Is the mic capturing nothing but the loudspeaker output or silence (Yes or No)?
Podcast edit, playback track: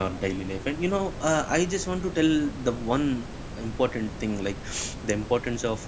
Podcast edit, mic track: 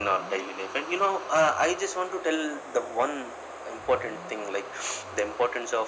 Yes